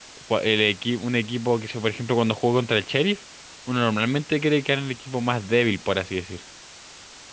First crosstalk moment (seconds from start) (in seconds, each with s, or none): none